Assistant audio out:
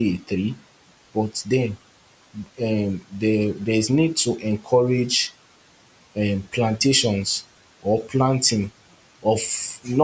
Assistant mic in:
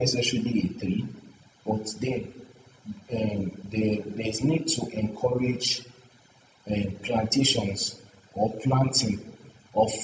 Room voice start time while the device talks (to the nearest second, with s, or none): none